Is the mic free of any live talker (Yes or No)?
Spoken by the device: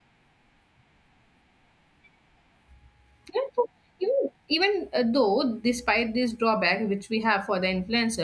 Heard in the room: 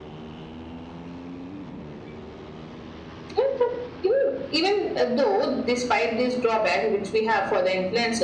Yes